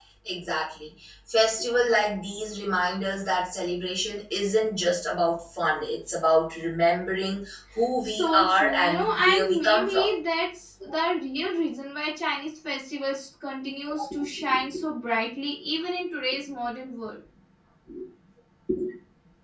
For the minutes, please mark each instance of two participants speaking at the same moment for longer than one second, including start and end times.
8.0-10.1

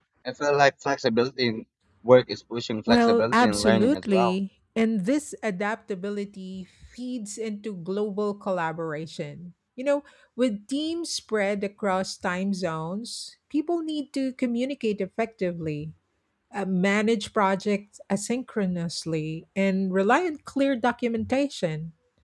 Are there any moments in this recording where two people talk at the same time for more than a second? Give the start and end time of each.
2.9-4.3

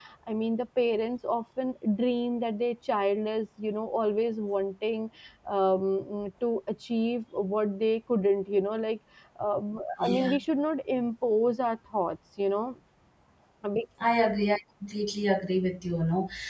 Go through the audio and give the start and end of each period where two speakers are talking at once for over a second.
none

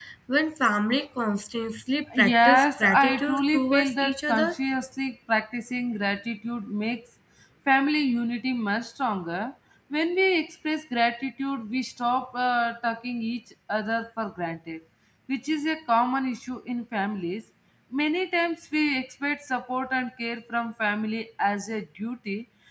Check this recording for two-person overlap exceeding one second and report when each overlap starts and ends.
2.2-4.5

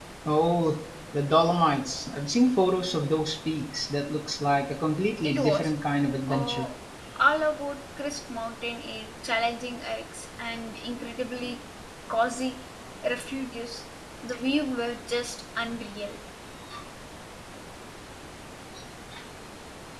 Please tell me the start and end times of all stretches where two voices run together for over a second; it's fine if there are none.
none

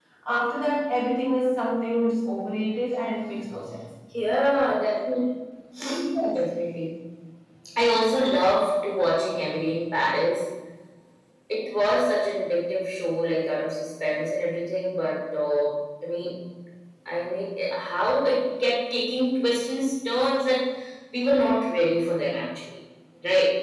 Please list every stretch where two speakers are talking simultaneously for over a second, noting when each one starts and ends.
none

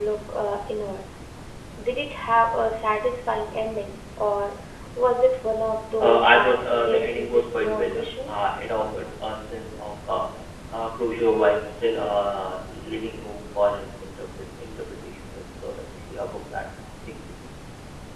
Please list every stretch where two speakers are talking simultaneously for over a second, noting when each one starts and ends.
6.0-8.4

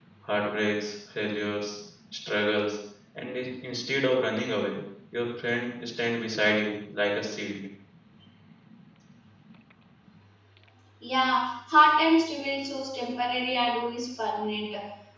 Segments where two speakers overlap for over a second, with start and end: none

